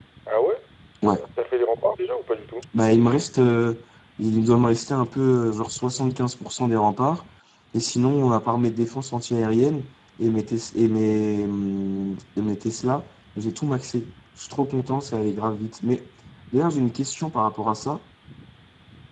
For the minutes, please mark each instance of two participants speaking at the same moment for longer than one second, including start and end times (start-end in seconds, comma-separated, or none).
none